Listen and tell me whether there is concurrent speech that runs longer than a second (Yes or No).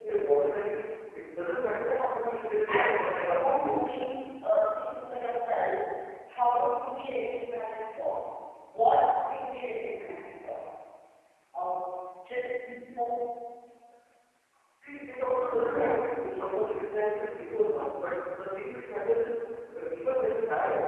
Yes